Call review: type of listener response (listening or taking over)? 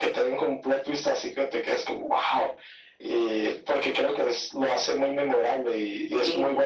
listening